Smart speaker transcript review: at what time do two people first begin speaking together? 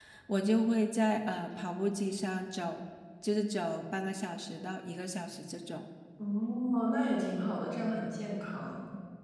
none

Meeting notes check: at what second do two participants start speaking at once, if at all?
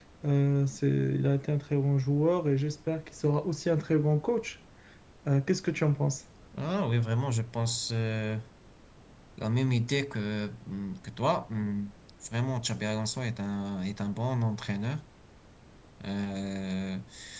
none

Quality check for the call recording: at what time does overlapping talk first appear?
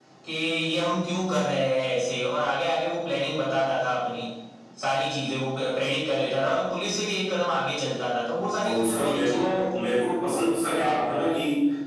9 s

